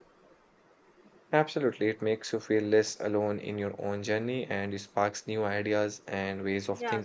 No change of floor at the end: No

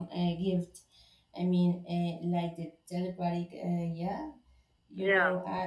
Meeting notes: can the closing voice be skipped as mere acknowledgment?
Yes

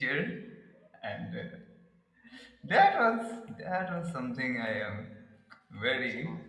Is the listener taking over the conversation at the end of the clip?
No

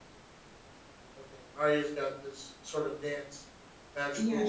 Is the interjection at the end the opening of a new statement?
Yes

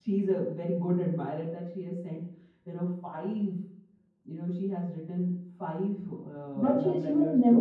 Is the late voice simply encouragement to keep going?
No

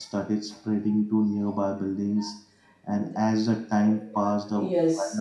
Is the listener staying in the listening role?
No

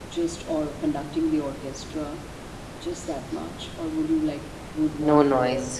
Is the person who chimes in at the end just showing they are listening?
Yes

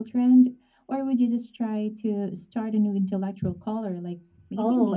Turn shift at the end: Yes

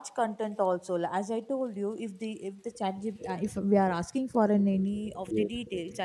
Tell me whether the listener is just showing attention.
Yes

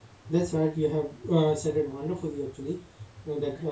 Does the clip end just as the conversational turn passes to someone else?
No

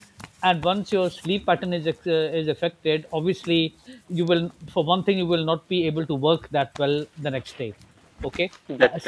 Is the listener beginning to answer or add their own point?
No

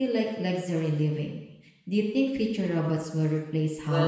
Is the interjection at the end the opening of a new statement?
Yes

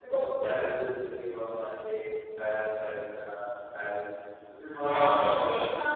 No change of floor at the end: No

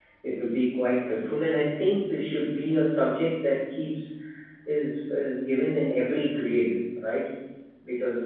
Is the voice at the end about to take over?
No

